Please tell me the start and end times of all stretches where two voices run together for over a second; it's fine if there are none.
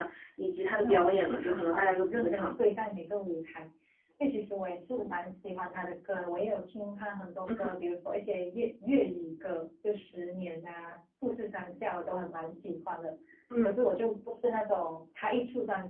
0.8-2.5

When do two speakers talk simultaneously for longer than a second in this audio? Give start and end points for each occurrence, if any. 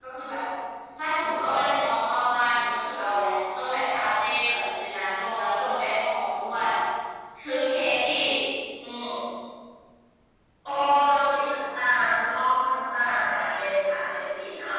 none

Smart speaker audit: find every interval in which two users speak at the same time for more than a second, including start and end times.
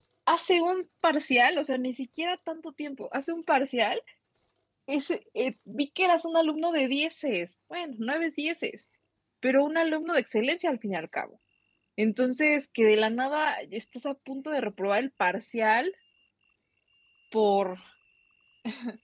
none

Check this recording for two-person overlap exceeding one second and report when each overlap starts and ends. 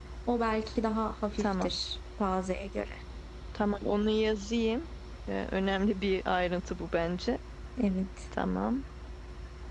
none

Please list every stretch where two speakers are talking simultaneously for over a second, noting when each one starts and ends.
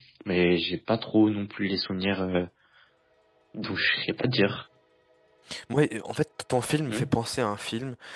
none

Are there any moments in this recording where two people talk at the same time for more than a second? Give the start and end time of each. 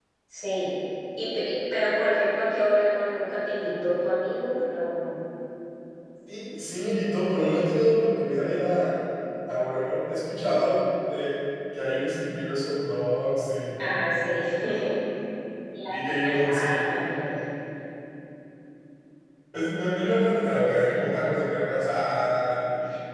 15.9-17.2

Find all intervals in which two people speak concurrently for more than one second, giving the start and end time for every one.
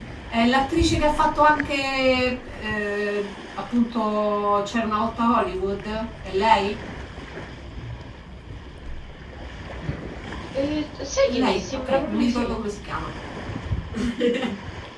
11.3-12.6

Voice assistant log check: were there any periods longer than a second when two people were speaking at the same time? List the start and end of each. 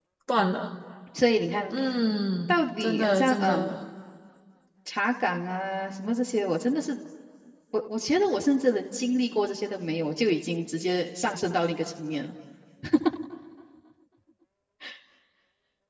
2.5-3.7

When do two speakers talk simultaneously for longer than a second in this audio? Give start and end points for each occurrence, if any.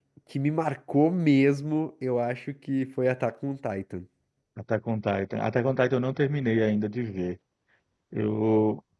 none

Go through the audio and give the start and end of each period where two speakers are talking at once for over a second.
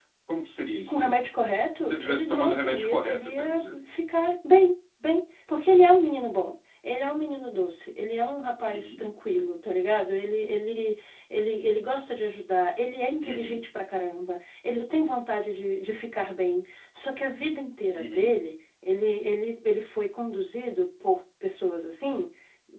1.8-3.8

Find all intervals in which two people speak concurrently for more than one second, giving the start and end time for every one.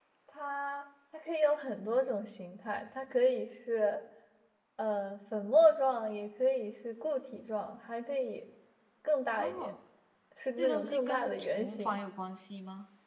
10.6-12.0

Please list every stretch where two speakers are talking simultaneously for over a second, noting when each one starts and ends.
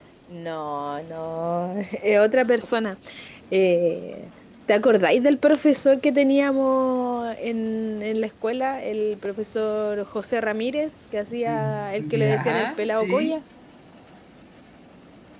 11.5-13.4

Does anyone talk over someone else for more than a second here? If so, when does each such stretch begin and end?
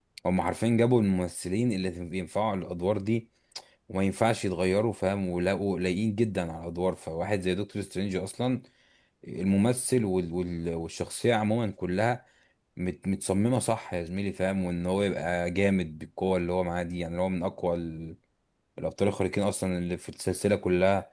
none

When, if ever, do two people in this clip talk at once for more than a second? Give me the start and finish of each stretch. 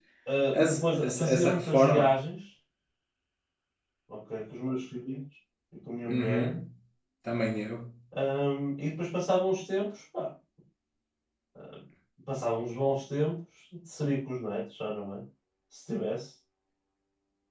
0.5-2.1

